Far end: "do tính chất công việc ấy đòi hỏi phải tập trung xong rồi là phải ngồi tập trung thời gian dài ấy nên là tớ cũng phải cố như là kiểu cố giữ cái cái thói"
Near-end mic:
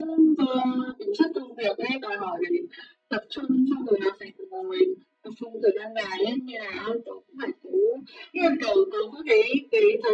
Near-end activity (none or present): none